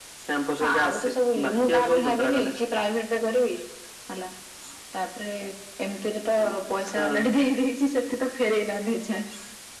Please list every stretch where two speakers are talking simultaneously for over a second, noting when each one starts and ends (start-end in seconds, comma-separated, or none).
0.6-2.6